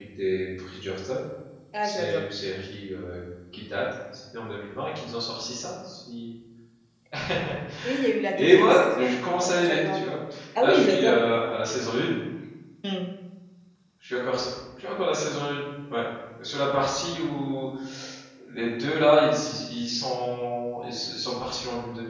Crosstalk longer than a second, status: present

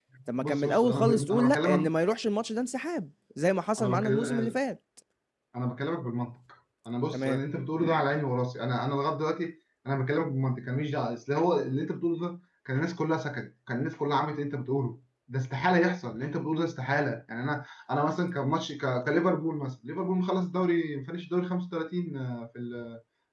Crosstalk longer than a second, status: present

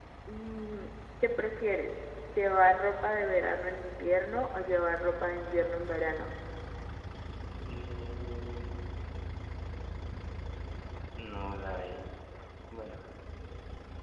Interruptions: none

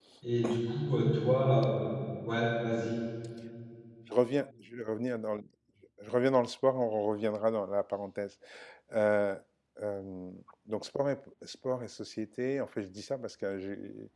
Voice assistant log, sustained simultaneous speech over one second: none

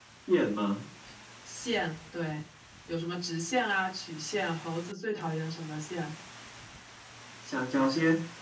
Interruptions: none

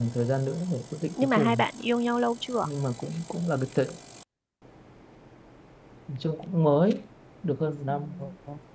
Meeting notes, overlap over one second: none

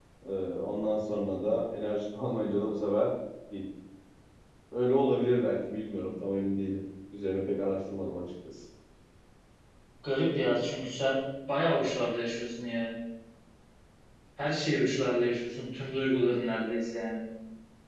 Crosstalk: none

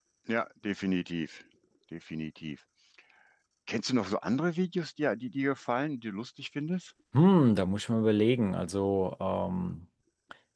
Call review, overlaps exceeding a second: none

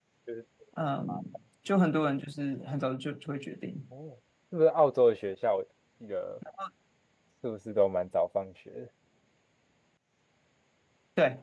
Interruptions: none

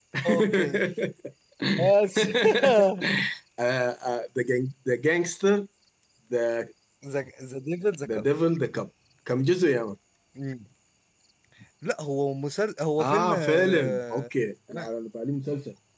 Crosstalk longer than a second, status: present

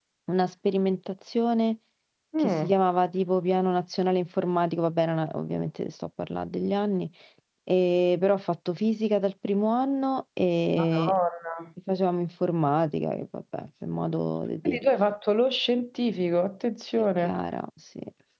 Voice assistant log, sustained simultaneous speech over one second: none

